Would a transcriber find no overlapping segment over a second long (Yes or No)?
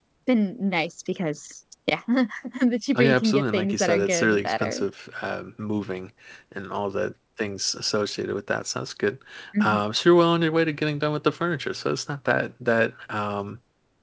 No